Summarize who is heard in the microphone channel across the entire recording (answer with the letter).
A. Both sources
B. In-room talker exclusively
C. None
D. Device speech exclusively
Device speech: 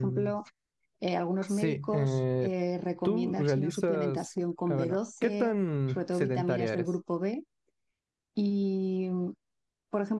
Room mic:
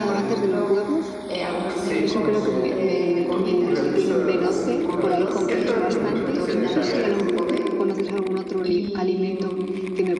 A